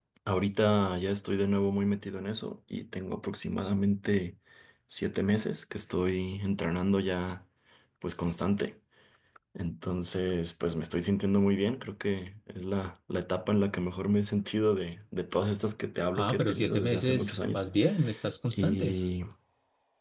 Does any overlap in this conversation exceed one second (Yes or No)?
Yes